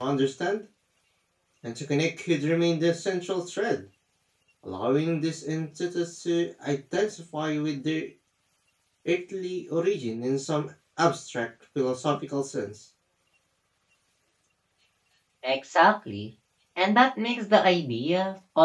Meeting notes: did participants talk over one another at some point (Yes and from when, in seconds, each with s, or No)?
No